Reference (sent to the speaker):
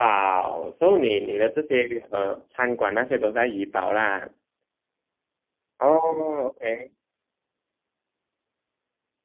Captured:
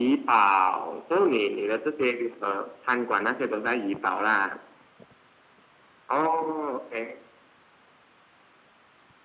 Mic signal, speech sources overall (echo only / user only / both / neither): echo only